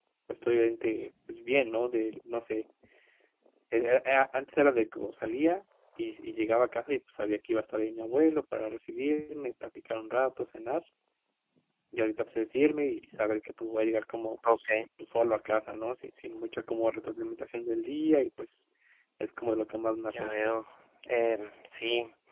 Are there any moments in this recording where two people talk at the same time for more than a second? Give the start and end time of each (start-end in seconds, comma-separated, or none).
none